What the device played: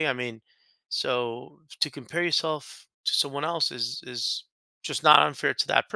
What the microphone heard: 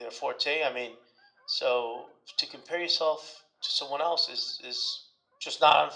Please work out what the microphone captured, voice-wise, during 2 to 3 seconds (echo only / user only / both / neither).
echo only